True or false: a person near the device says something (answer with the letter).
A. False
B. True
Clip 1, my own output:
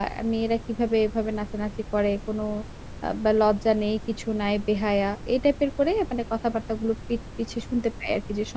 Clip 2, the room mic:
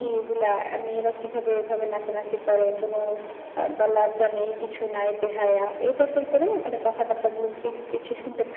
A